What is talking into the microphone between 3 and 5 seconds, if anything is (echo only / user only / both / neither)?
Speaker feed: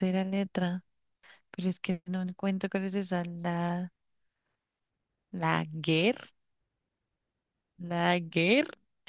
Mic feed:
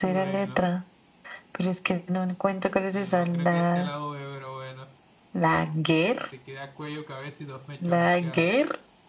both